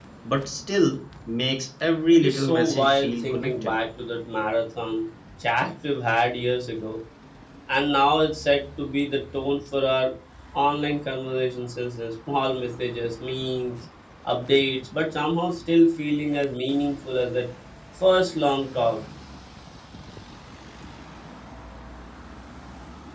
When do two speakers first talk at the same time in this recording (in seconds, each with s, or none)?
2.1 s